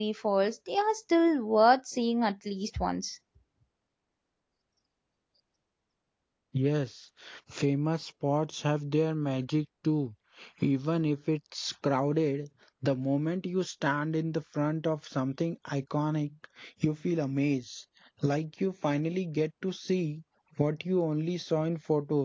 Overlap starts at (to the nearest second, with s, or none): none